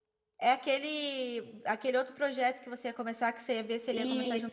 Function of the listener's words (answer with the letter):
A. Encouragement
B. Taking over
B